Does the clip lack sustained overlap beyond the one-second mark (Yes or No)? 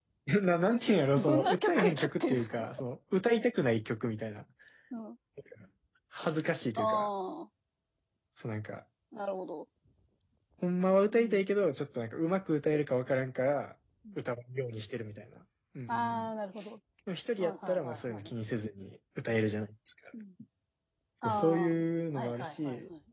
No